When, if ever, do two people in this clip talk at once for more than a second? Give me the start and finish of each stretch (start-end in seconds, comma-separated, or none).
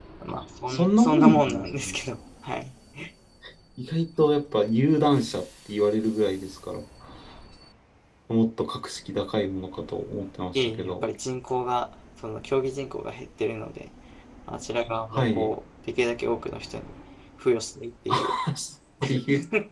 0.7-2.0